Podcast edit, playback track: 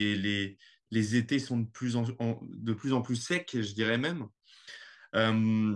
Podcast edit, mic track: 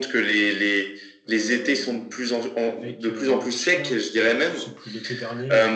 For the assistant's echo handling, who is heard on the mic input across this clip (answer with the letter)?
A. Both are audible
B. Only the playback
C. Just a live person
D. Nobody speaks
A